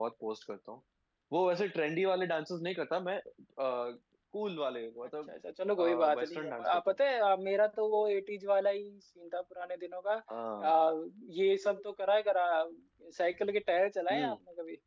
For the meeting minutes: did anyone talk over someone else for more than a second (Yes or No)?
Yes